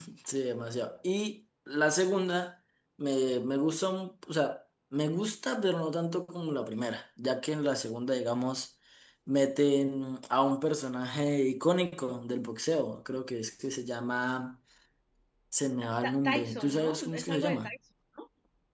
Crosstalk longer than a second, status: present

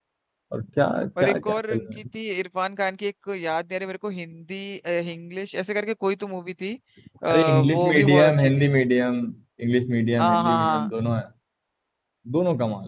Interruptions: present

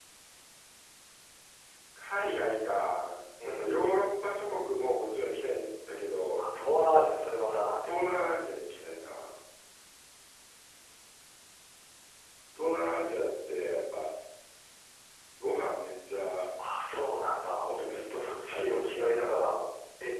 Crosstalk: present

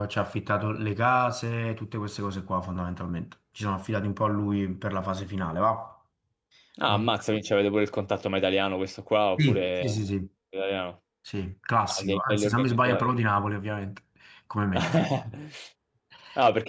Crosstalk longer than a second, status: present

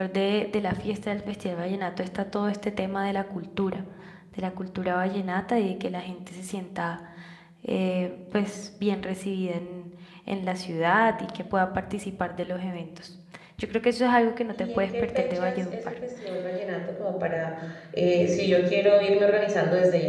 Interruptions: present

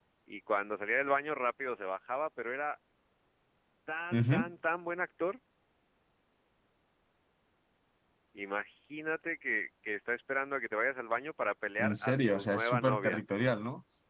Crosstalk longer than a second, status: present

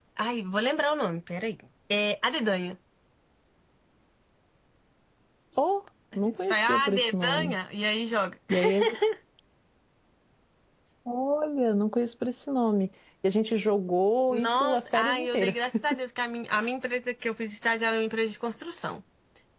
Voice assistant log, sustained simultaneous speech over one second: present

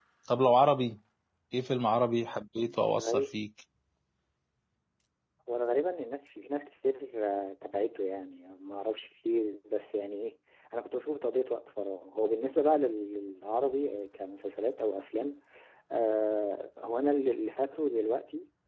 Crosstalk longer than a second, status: none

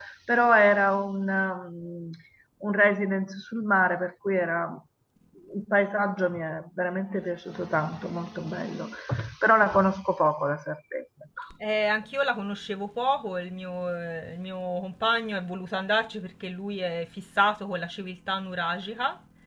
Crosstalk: none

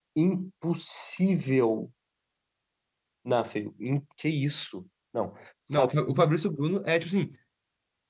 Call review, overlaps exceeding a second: none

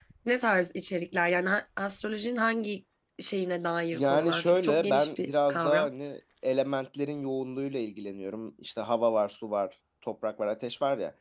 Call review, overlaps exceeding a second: present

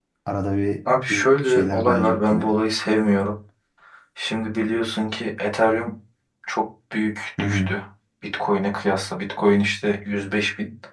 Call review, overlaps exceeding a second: present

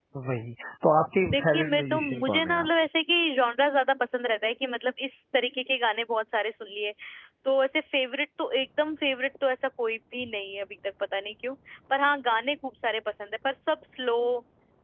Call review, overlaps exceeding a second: present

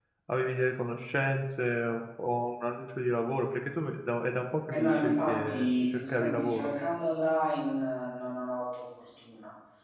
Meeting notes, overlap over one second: present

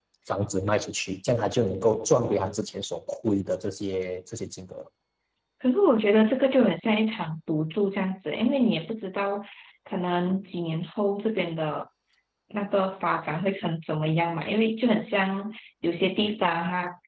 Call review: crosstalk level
none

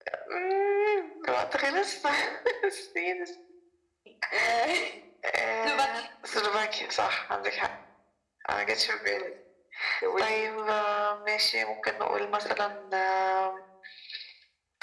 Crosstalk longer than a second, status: none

